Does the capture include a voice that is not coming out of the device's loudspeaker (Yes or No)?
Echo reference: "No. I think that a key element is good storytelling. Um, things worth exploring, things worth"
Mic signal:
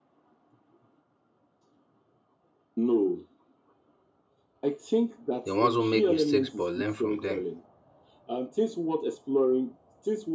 Yes